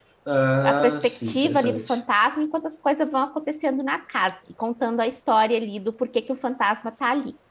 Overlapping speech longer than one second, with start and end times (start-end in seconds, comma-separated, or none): 0.6-2.0